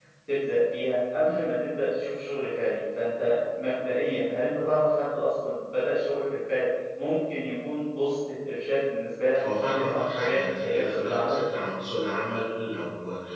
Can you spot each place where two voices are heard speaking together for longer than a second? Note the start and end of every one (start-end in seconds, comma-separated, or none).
9.4-11.4